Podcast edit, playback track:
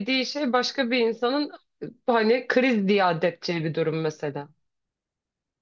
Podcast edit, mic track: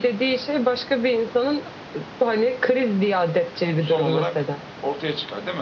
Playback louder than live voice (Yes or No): Yes